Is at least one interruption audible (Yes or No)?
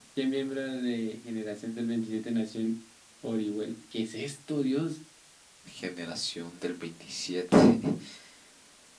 No